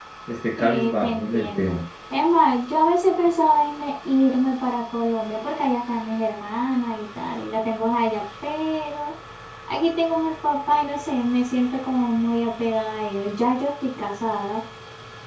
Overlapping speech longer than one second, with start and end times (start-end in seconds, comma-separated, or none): 0.6-1.8